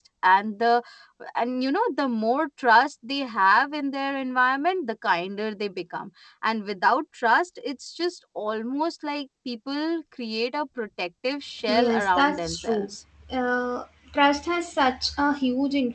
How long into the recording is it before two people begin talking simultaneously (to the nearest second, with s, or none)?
12 s